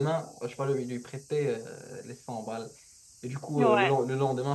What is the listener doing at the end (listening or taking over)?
listening